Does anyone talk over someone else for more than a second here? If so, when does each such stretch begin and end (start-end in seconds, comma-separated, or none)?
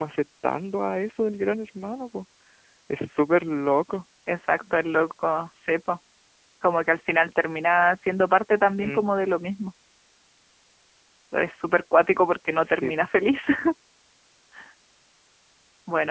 none